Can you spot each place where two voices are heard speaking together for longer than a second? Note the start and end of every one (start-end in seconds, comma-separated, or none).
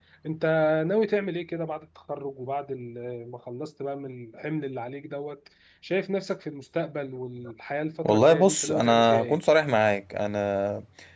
8.0-9.4